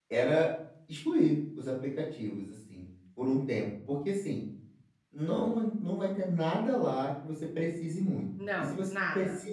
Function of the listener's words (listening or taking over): listening